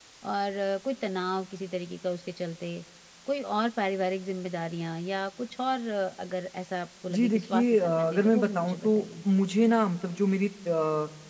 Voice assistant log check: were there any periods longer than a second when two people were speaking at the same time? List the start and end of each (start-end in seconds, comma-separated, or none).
7.1-9.1